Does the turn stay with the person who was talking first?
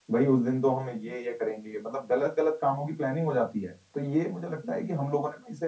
Yes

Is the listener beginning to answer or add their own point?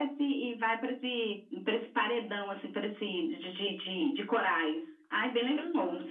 Yes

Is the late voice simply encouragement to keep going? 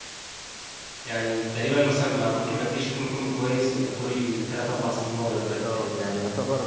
No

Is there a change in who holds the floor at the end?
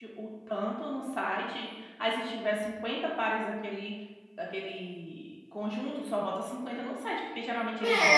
Yes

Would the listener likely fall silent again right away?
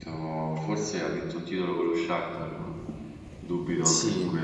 No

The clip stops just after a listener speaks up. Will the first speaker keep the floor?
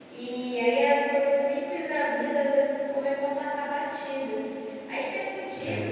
Yes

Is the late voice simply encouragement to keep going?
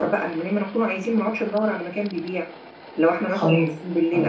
No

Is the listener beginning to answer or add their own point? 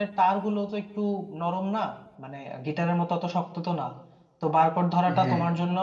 No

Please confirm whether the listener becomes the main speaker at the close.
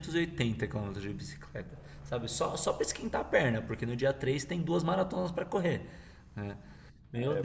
Yes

